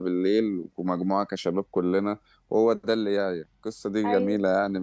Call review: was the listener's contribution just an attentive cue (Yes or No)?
Yes